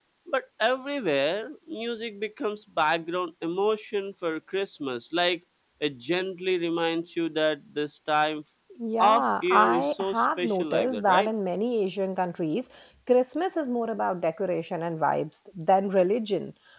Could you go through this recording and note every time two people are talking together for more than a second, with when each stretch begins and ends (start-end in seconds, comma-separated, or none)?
9.0-11.3